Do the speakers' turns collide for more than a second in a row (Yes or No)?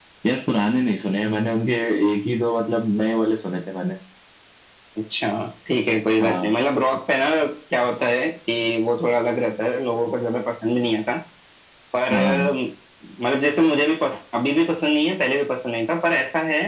No